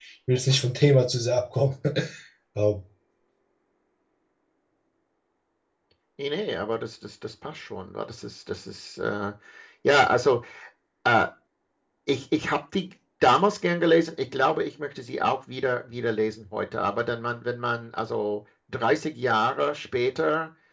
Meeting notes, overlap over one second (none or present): none